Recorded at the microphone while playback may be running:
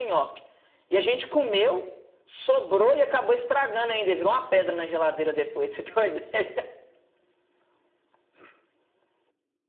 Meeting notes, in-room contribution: none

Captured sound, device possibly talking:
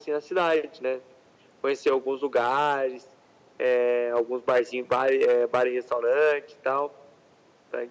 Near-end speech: none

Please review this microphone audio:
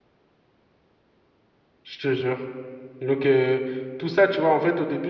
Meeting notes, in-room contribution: present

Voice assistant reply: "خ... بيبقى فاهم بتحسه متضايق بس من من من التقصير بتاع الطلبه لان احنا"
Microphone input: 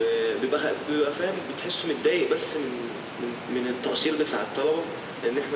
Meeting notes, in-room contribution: none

